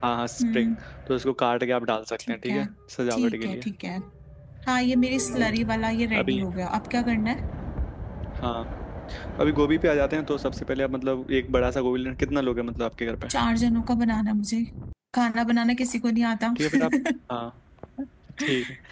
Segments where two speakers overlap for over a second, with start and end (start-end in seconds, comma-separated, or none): none